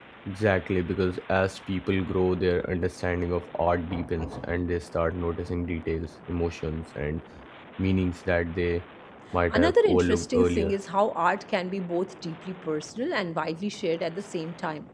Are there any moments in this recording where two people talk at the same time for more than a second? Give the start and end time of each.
9.5-10.8

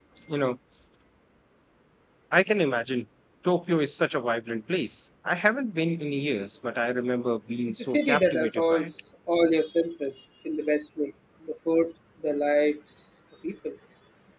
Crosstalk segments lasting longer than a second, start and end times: 7.7-8.9

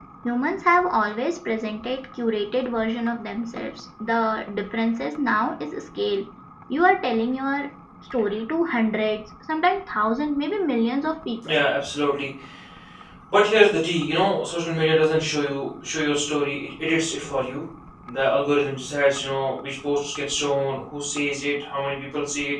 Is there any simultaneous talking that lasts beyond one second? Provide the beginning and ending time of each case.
none

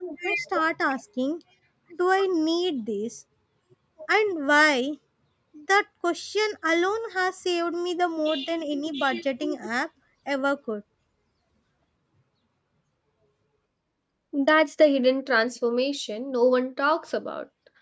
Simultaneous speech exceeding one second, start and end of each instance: none

